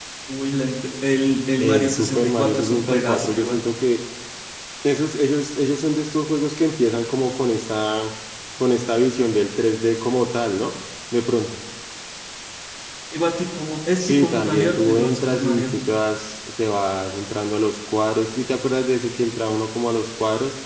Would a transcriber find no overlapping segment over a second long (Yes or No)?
No